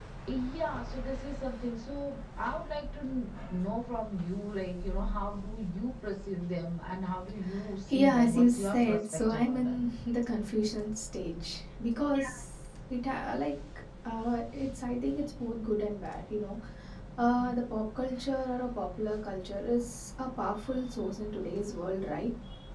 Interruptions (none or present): present